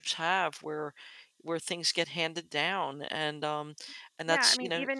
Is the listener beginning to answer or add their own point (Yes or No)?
Yes